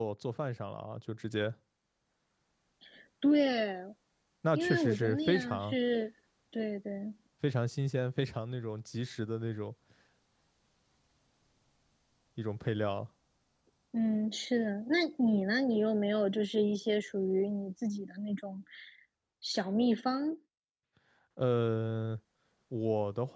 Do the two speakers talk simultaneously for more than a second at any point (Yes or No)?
Yes